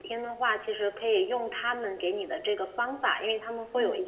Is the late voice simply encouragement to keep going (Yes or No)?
Yes